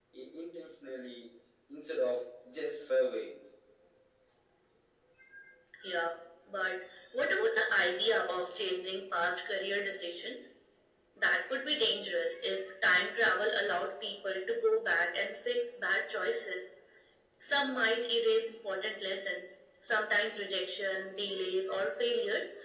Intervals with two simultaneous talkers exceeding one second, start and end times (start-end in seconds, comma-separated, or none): none